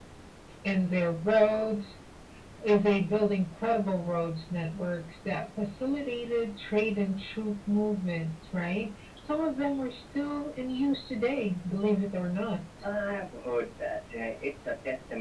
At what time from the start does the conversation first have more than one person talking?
none

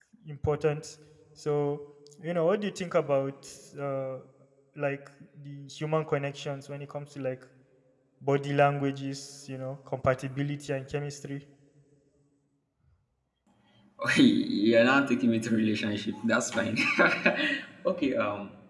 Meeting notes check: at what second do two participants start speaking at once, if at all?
none

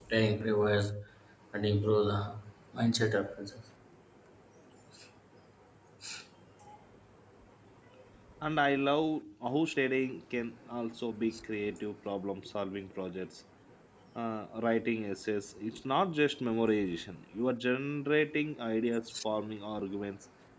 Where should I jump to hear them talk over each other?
none

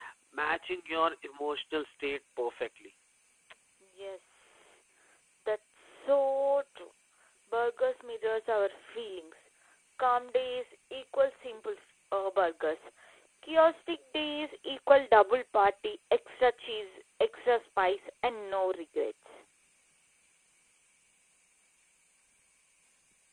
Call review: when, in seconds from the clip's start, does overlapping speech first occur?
none

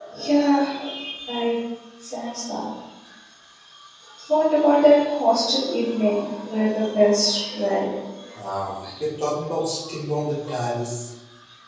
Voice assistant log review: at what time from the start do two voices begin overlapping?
none

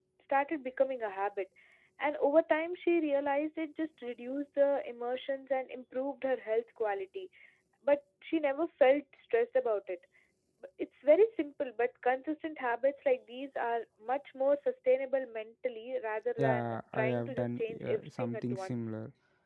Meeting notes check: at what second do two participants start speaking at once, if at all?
16.4 s

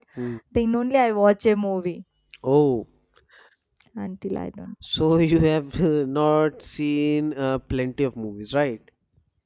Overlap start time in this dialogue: none

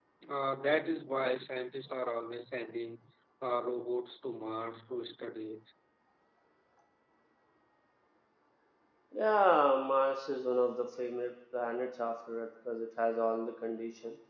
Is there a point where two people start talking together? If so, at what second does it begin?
none

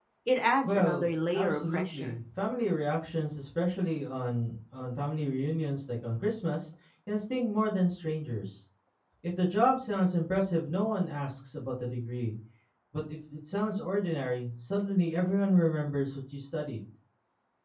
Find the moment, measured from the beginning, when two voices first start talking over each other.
0.7 s

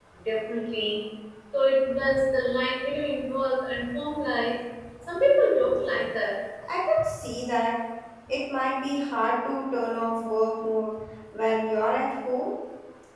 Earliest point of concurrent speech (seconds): none

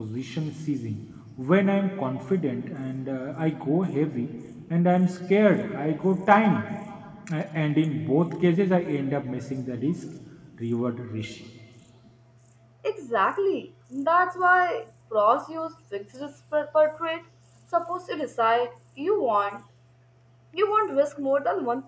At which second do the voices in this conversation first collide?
none

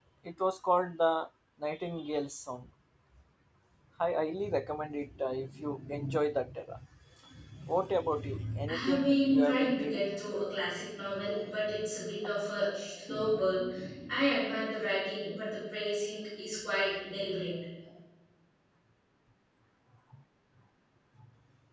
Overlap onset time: 8.7 s

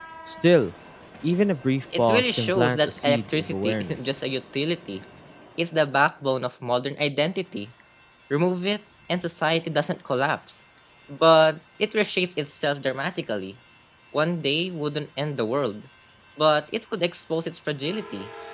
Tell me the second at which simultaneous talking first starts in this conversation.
2.0 s

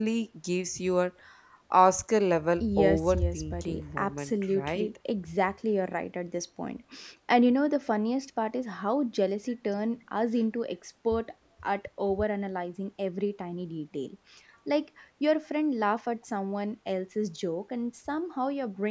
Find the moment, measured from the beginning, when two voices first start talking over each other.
2.6 s

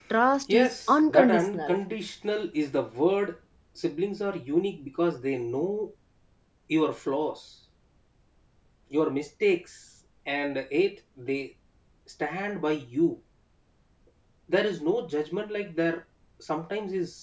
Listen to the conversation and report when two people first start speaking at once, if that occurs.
0.5 s

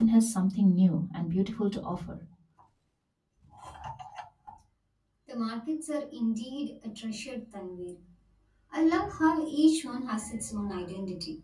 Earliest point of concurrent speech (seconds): none

